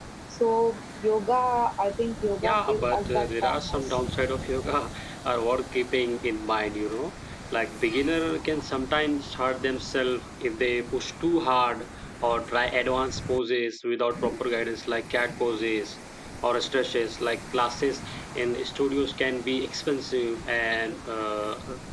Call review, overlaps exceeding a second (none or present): present